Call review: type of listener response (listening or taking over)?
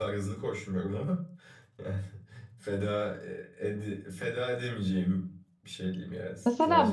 taking over